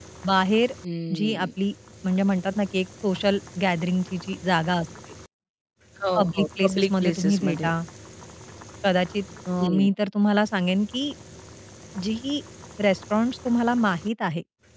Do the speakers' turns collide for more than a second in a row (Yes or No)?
Yes